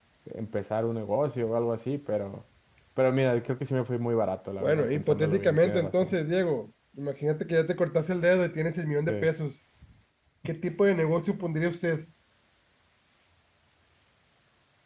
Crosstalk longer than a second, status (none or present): present